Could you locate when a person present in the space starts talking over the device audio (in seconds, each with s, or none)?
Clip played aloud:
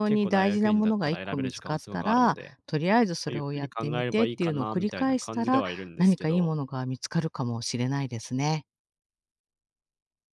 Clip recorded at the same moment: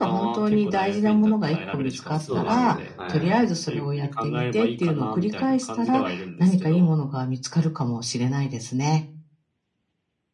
2.3 s